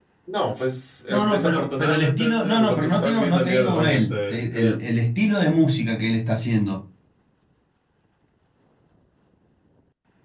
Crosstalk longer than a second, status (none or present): present